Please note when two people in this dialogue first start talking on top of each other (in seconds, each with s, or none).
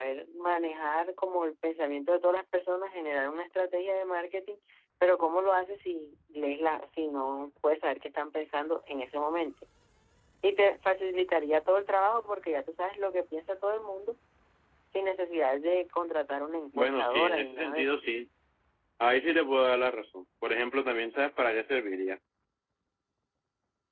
16.7 s